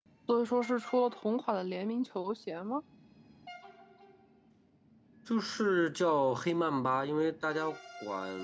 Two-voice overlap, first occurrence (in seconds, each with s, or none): none